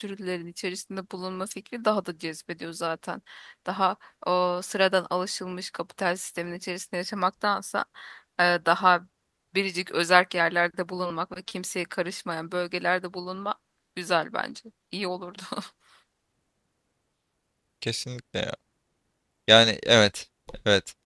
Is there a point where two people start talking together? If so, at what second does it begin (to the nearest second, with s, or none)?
none